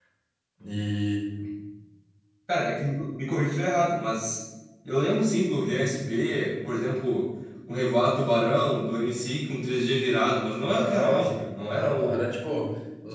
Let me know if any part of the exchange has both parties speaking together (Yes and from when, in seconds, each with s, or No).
Yes, from 10.8 s